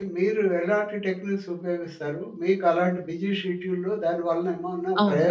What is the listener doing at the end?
listening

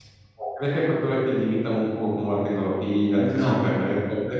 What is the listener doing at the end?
listening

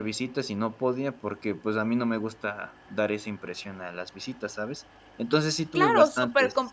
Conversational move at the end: taking over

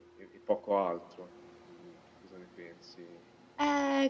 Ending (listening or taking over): taking over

